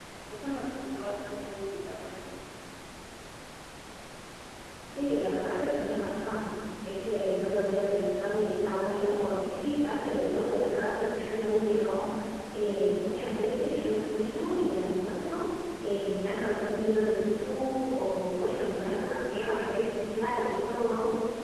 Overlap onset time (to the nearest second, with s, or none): none